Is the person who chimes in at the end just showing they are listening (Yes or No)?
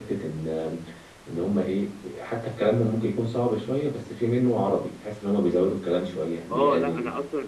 No